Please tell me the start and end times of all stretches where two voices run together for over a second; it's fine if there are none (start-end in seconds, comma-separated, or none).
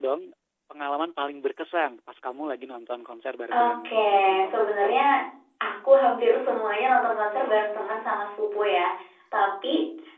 3.5-4.7